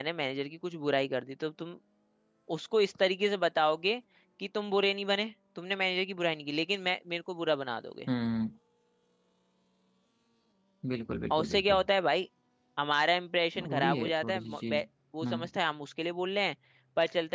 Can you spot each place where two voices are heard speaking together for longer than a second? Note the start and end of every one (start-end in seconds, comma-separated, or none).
13.6-14.8